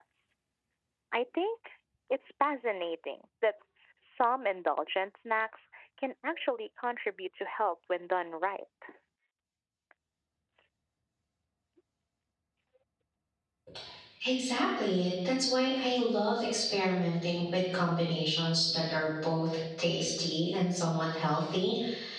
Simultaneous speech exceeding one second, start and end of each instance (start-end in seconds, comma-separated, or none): none